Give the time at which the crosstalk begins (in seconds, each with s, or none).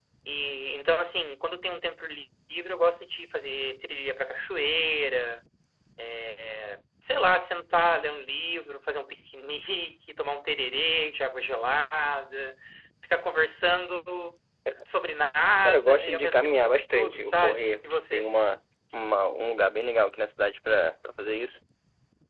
15.6 s